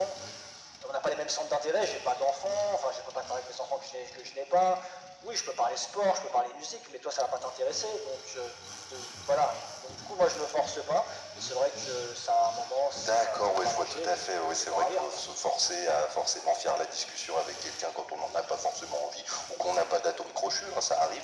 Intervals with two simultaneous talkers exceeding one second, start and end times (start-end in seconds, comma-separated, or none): 13.0-15.2